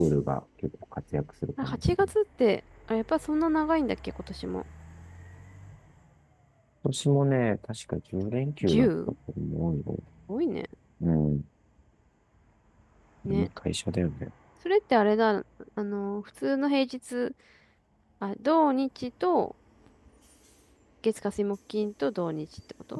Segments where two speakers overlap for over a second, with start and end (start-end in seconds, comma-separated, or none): none